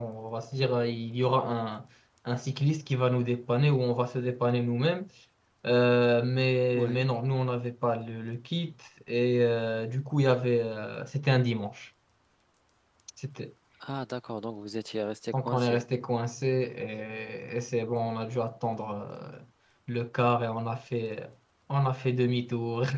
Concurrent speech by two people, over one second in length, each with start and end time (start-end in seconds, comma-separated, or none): none